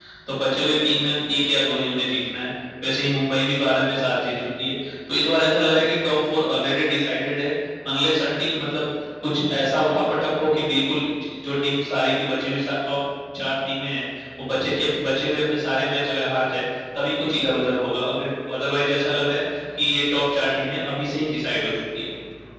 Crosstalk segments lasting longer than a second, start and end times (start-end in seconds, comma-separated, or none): none